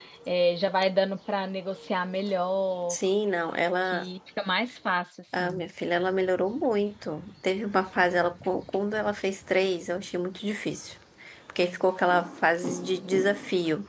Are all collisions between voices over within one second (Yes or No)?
Yes